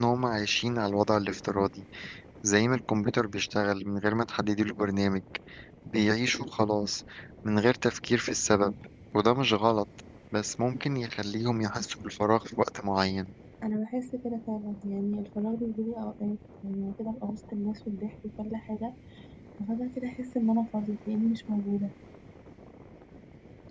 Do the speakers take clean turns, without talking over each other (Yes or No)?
Yes